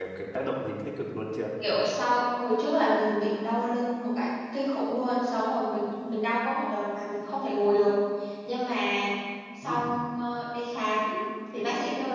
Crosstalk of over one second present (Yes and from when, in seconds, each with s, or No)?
No